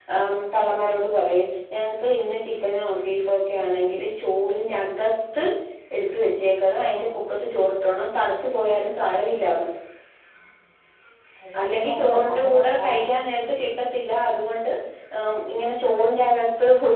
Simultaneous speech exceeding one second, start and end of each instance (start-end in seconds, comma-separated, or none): 11.6-13.1